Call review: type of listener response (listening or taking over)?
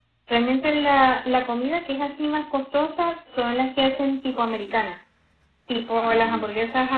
listening